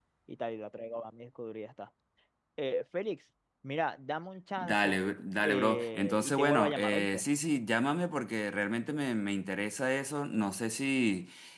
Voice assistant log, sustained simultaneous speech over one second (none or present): present